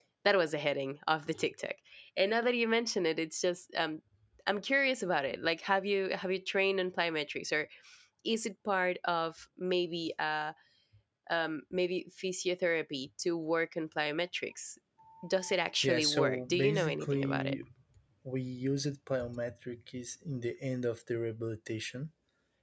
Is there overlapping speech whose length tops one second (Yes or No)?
Yes